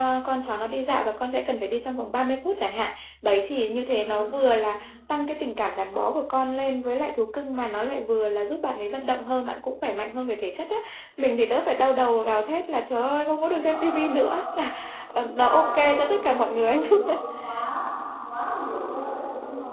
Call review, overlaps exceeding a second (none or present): present